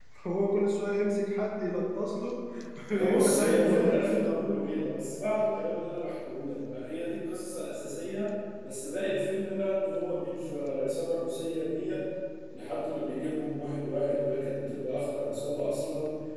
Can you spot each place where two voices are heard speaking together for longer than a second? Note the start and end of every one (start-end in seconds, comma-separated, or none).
3.0-4.5